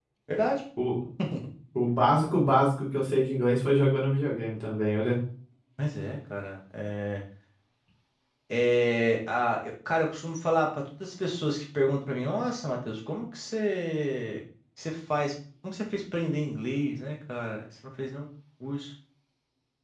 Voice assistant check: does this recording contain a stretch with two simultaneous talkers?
No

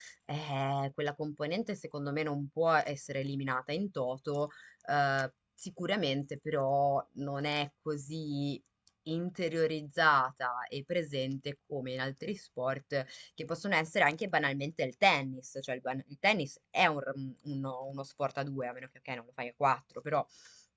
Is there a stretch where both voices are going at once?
No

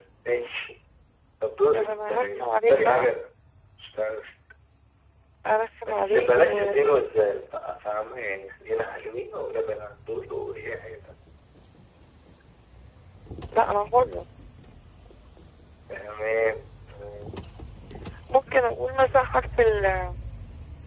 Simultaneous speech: Yes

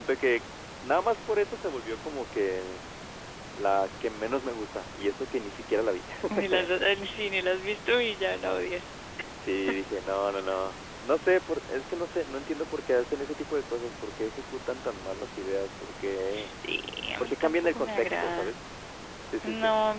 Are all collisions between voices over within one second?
No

